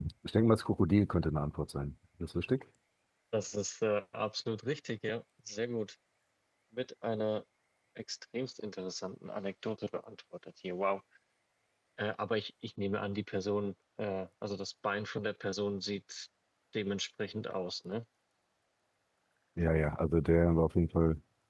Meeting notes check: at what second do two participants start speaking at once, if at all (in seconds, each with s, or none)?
none